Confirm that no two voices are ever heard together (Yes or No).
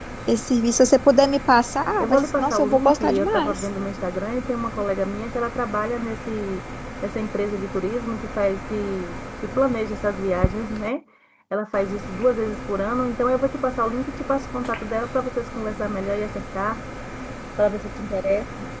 No